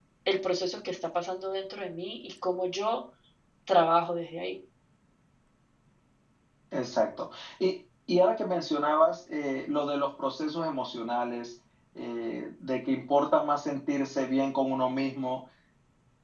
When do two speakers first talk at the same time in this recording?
none

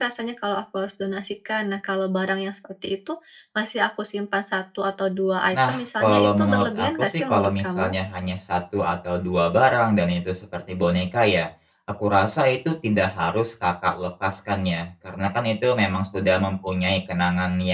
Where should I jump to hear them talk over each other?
5.5 s

